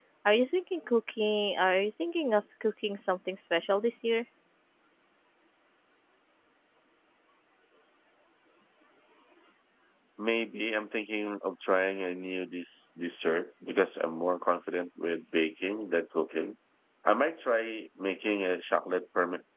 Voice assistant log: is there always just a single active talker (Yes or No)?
Yes